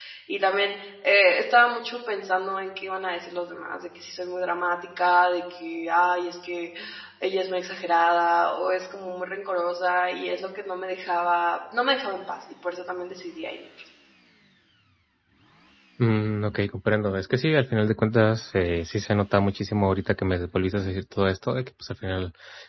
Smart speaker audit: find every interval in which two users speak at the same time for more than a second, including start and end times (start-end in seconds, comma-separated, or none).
none